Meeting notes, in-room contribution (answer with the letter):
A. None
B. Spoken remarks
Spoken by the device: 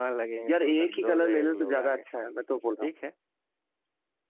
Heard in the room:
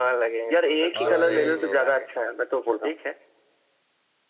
B